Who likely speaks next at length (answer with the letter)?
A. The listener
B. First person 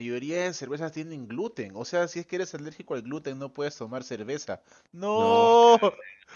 A